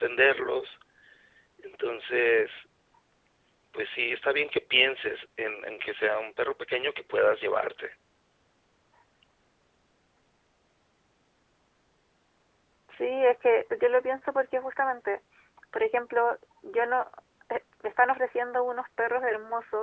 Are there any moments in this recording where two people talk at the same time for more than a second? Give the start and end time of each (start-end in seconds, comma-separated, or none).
none